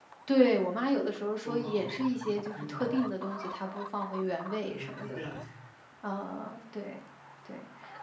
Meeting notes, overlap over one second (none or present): present